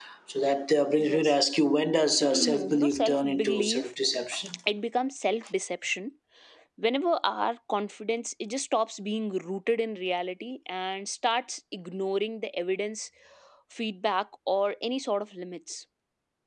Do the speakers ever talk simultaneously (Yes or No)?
Yes